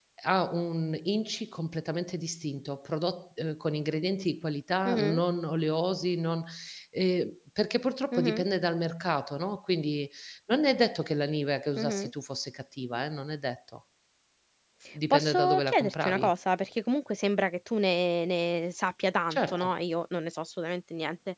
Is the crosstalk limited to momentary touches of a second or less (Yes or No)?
No